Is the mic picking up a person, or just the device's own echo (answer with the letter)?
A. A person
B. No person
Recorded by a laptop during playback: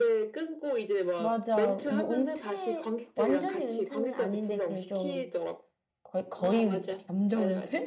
A